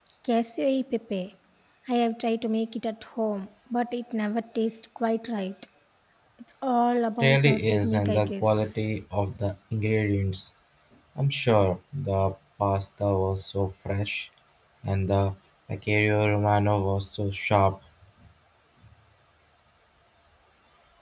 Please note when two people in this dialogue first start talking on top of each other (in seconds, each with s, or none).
7.2 s